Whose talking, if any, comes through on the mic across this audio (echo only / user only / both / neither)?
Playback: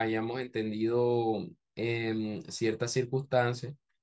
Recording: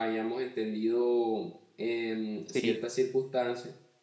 both